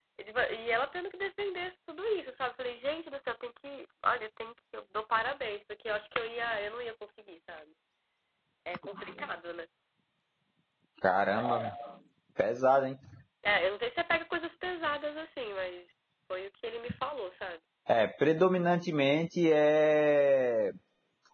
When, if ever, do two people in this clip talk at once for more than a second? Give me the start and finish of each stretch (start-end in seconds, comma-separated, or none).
none